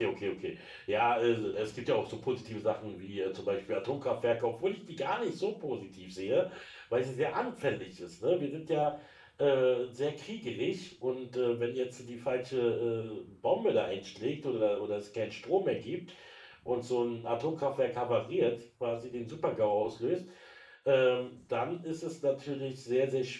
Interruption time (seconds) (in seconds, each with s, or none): none